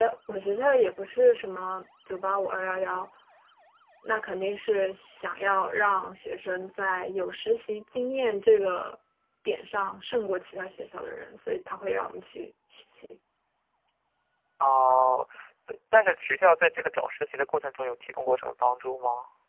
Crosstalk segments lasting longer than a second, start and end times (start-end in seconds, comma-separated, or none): none